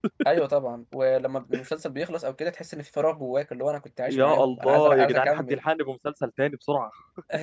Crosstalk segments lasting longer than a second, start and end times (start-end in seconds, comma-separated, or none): 4.1-5.6